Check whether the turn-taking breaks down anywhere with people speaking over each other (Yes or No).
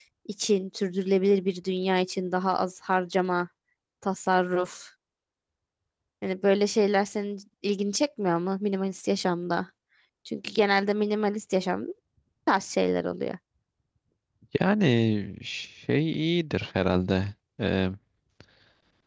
No